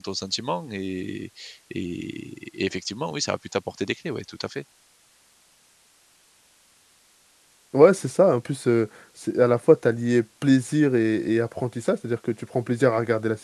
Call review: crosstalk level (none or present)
none